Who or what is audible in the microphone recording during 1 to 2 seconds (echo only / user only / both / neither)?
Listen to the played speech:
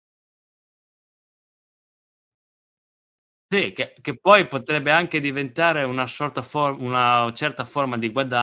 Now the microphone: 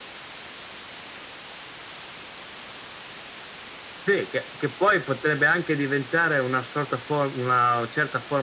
neither